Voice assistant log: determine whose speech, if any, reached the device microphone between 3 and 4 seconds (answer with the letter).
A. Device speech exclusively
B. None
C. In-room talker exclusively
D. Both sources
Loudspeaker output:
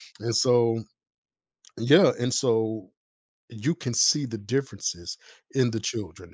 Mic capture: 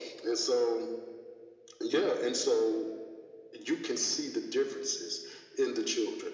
A